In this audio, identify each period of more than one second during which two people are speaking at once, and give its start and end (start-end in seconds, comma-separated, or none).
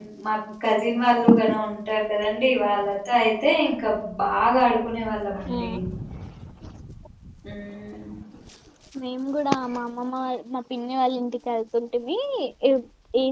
none